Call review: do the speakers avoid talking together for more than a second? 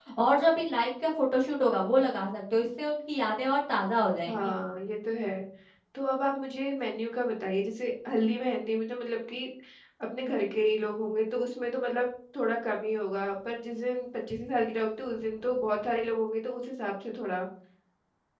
Yes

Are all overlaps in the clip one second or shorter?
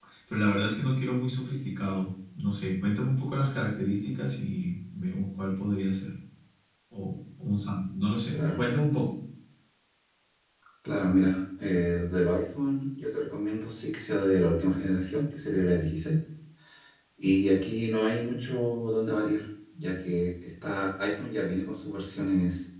Yes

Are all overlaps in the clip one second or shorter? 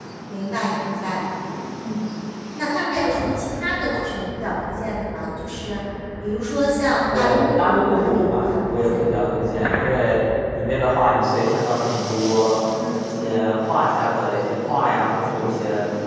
No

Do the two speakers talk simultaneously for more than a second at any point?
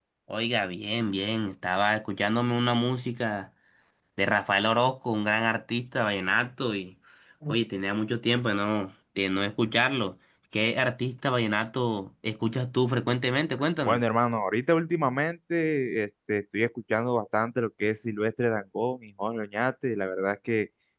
No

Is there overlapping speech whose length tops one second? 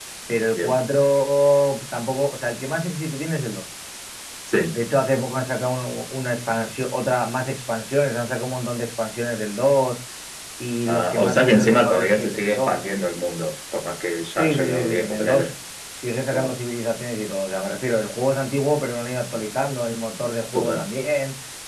Yes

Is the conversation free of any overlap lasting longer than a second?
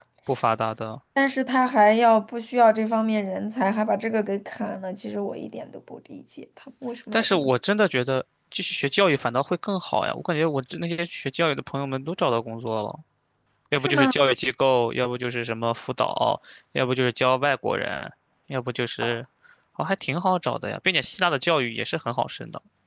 Yes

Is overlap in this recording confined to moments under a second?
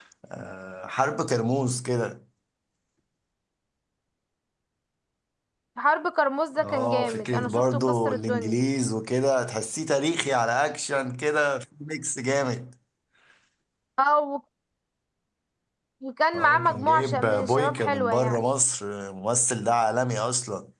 No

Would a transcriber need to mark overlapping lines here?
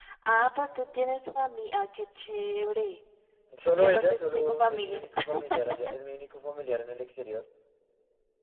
Yes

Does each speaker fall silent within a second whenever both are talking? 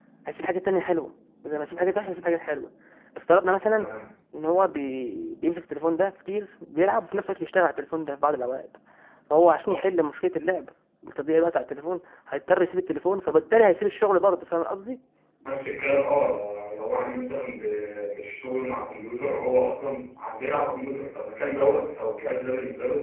Yes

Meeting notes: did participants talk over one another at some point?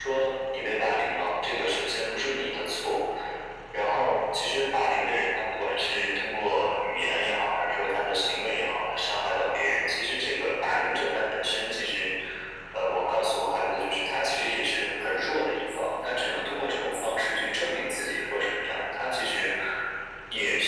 No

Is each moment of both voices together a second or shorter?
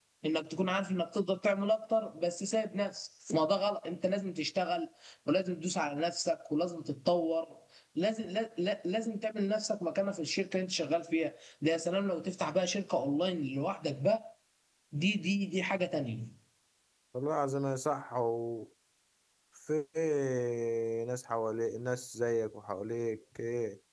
Yes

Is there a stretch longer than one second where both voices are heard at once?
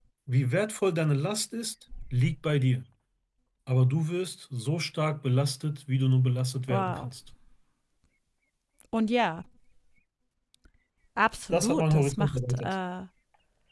Yes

